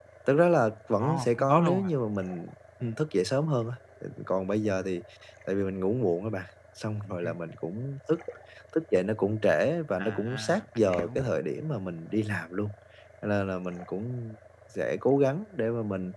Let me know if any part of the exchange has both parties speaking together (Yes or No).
Yes